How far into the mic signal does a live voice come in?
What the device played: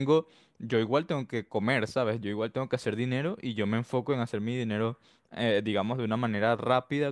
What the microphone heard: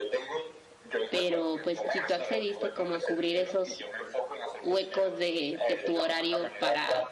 1 s

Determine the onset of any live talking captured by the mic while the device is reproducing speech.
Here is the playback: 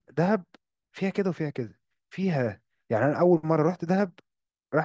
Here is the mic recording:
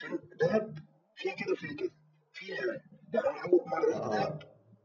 4 s

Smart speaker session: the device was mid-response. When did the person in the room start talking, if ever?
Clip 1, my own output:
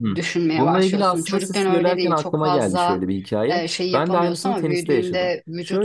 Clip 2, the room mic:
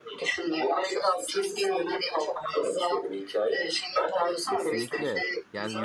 4 s

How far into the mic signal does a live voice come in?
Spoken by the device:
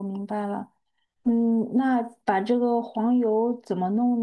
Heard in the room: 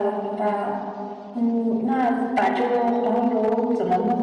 none

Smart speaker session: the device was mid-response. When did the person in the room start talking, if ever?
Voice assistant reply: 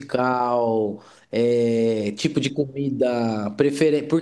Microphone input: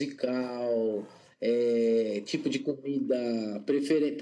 none

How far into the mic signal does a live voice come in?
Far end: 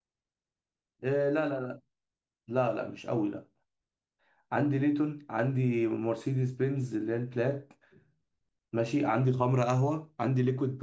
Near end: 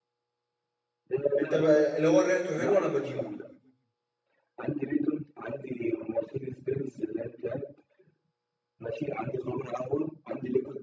1 s

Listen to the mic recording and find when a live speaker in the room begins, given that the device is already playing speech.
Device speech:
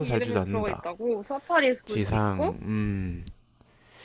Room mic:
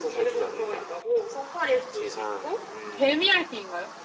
3 s

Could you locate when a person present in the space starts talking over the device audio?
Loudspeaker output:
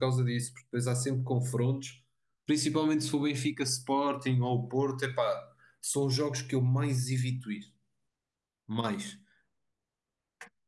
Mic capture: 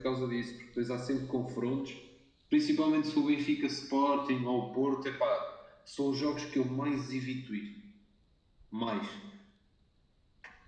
none

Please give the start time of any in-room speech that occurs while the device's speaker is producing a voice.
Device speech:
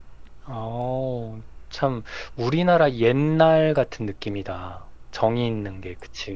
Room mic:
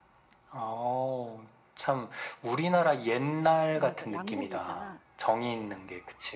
4 s

